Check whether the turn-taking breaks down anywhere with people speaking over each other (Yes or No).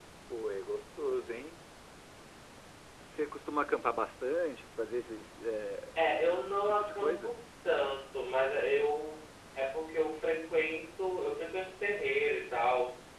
Yes